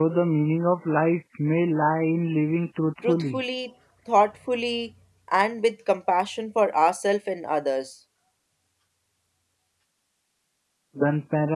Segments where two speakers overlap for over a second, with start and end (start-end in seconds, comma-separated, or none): none